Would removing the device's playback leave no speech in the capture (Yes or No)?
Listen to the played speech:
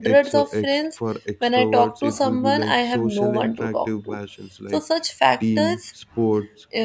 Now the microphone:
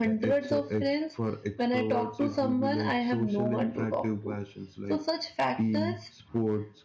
Yes